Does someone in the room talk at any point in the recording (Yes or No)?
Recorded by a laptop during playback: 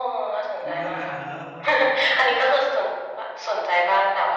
Yes